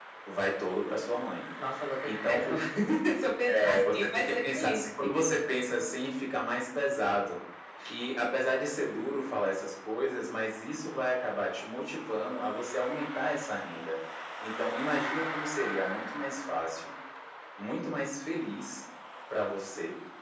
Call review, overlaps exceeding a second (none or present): present